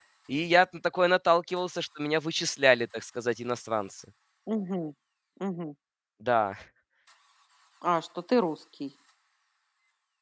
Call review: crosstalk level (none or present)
none